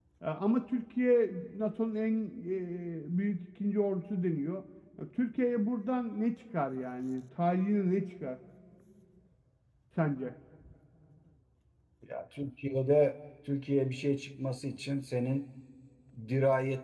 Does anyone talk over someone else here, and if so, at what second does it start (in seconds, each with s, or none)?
none